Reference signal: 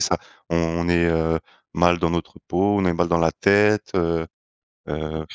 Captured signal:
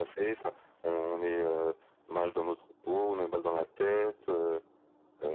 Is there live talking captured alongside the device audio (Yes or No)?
No